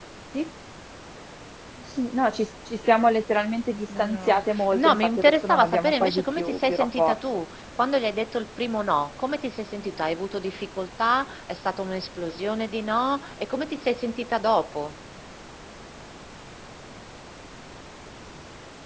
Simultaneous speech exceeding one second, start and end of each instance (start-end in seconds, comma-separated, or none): 4.0-7.2